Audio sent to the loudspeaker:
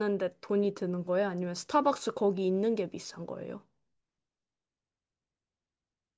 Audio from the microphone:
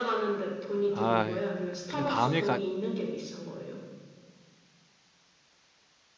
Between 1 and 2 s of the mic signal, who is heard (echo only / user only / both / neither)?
both